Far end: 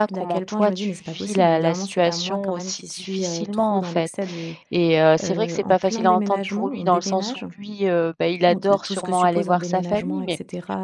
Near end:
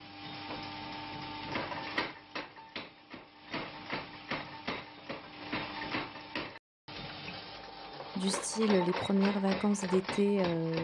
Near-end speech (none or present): present